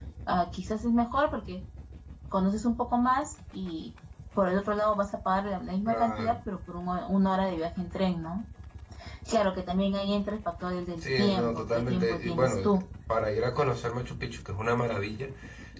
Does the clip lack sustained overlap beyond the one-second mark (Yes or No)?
No